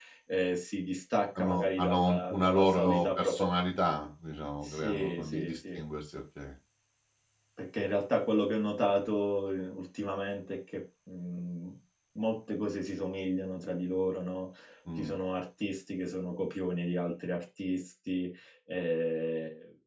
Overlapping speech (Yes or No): Yes